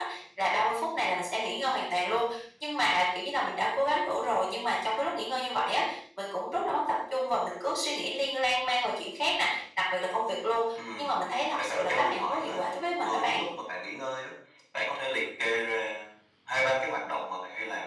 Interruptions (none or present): present